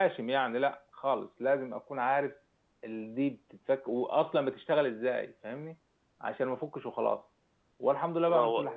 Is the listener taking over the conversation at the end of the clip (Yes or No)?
No